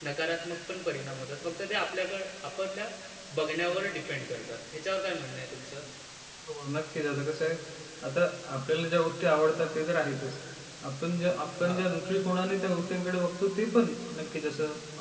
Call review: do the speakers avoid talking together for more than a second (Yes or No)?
Yes